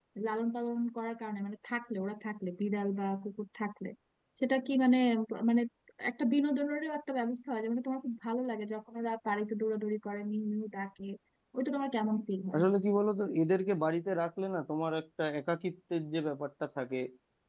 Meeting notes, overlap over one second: none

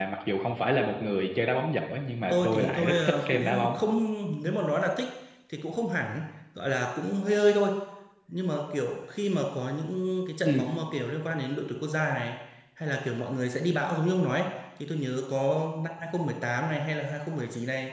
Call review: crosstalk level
present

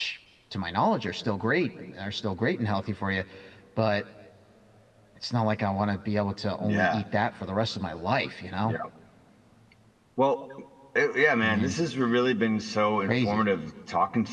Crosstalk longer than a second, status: none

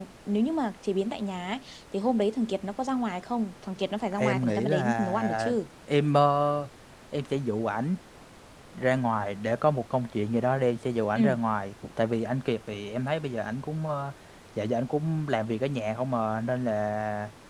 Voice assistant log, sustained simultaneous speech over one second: present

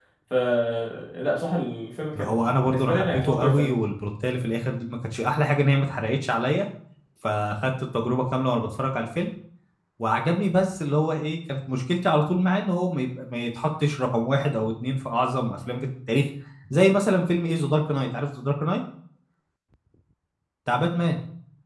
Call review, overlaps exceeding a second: present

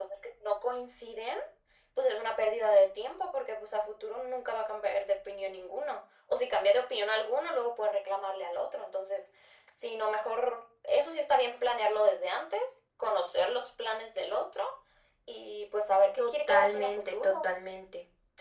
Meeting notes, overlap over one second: present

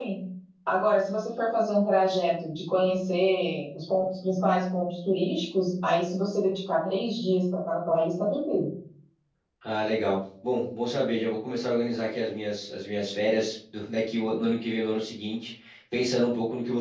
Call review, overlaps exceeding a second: none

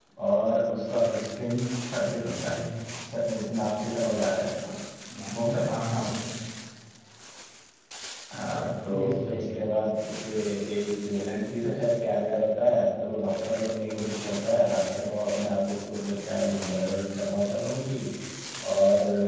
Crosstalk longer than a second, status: present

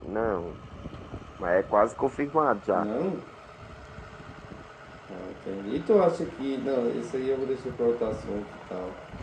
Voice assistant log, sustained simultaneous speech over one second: none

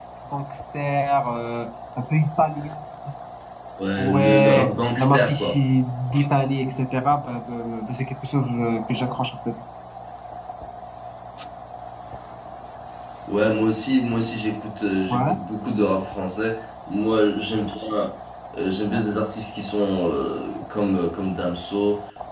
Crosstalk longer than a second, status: present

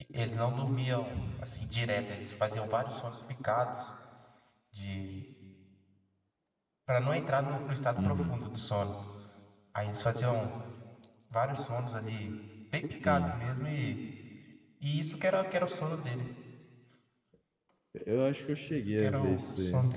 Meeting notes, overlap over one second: present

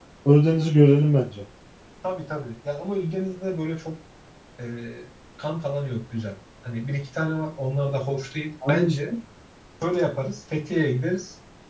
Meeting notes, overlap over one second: none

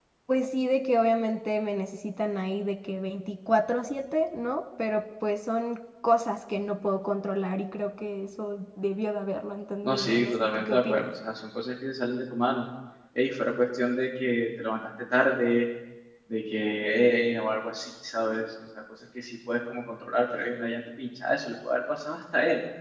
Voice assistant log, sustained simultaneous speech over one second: present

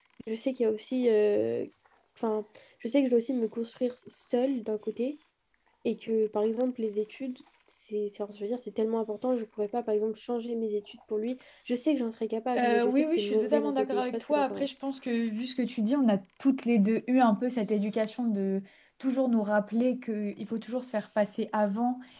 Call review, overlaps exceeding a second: present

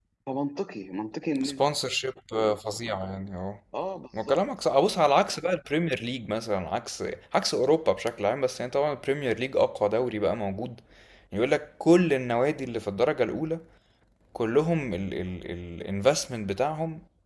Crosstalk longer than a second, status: none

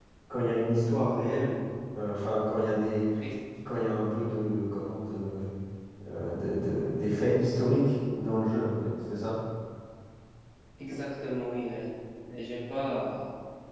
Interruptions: none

